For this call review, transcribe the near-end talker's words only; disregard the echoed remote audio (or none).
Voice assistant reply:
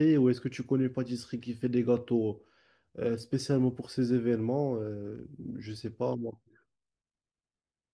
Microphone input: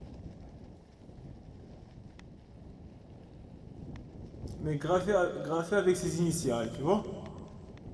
mais gravé, à- gravé avec ses initiales, tu vois?